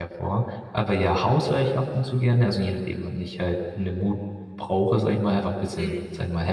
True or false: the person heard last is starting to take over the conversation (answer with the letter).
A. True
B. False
B